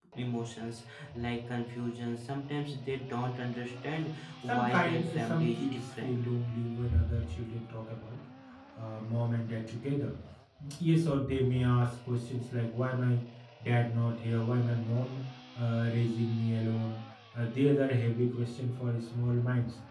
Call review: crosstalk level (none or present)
present